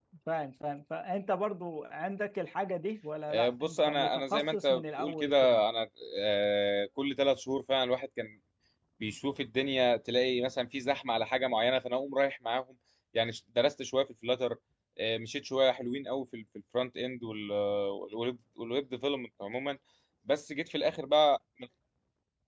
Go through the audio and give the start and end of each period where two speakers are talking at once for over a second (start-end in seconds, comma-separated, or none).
3.3-5.6